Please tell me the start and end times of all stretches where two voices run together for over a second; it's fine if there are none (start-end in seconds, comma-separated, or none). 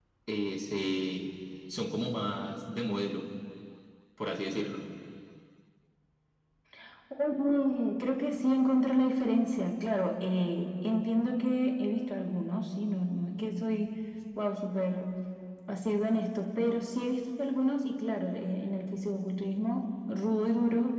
none